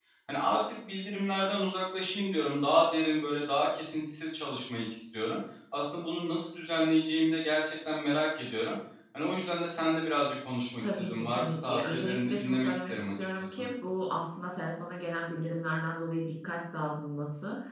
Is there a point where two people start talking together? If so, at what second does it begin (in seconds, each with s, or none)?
10.8 s